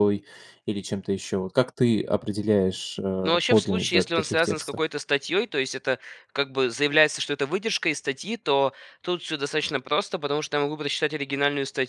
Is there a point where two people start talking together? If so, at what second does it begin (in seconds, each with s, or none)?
3.2 s